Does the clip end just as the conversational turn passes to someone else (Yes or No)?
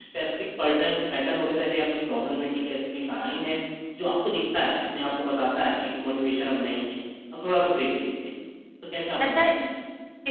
Yes